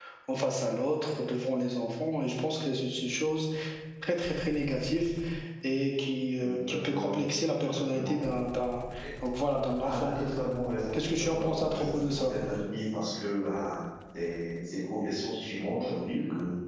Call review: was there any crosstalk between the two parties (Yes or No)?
Yes